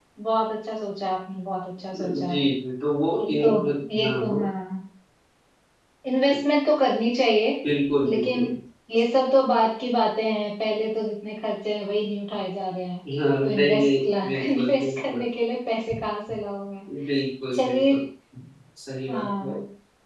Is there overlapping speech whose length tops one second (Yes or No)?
Yes